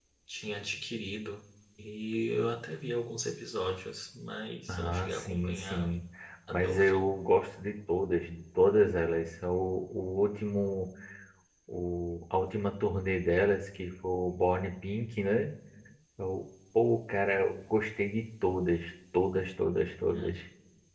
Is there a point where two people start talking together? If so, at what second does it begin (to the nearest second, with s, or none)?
5 s